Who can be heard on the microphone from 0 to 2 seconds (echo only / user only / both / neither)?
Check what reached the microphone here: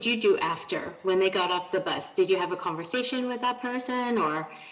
echo only